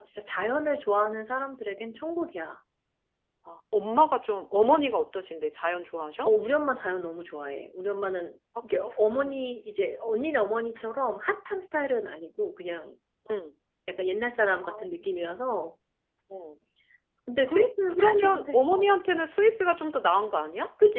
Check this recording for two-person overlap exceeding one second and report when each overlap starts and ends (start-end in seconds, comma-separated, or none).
17.5-18.9